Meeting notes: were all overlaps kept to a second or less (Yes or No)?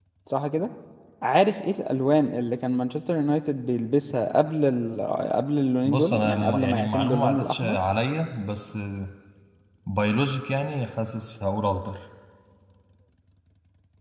No